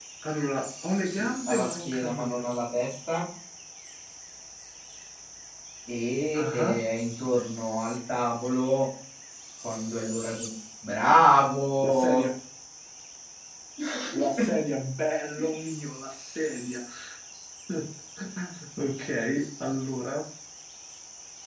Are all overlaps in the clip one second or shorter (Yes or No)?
No